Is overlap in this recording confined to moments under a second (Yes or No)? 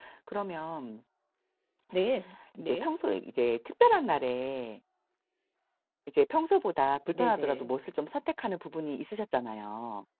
Yes